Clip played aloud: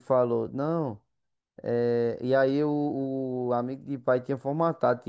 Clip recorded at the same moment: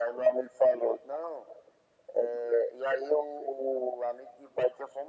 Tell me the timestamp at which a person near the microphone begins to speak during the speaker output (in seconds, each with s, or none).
none